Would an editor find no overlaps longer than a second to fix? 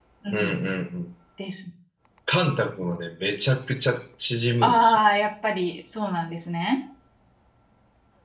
Yes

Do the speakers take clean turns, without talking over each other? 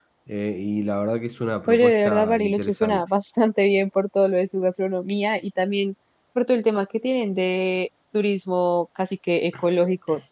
No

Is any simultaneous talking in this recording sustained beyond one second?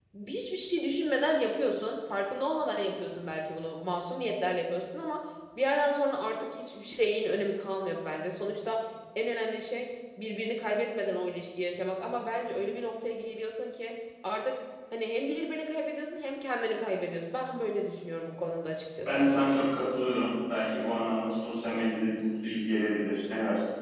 No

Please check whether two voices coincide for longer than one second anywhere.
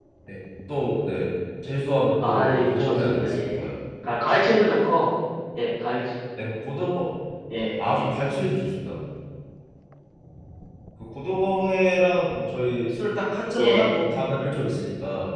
Yes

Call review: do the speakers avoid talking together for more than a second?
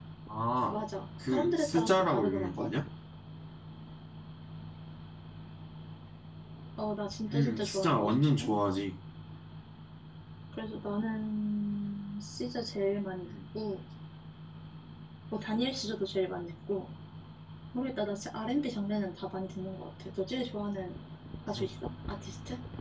No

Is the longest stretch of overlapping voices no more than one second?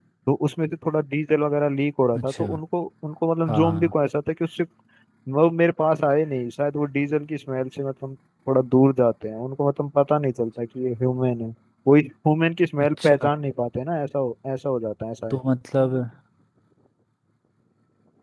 Yes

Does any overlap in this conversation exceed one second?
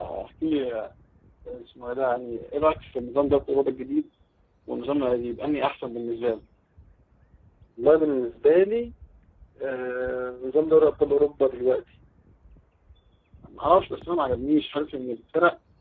No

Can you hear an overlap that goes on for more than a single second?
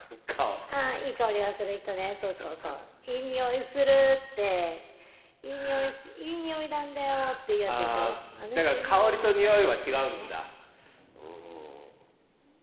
Yes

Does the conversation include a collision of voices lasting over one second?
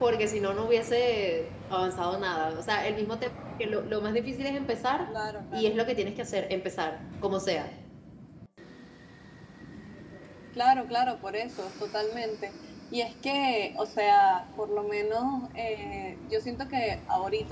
No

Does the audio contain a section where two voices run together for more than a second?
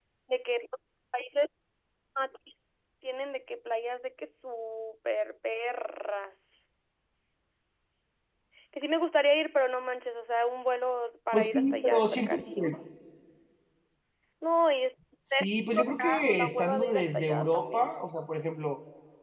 Yes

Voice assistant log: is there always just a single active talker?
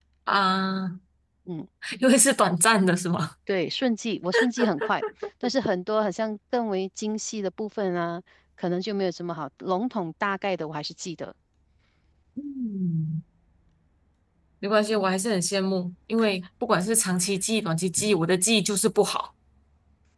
Yes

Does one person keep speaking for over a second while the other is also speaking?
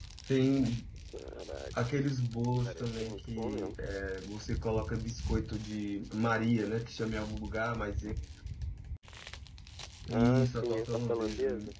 Yes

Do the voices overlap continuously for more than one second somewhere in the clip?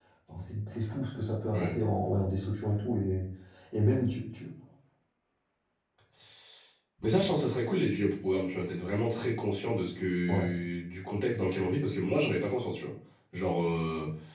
No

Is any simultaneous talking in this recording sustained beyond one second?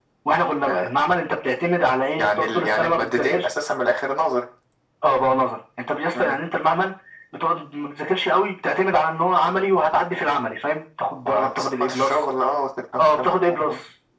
Yes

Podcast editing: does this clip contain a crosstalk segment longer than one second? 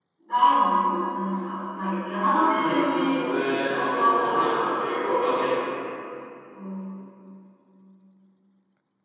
Yes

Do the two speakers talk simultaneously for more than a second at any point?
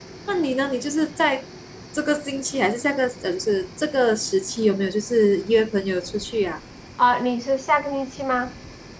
No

